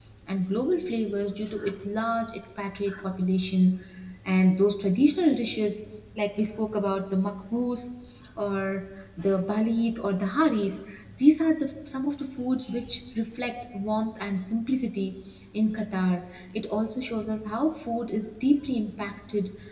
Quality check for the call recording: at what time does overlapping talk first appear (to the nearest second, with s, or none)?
none